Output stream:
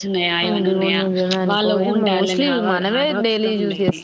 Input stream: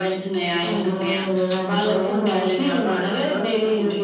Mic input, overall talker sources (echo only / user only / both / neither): echo only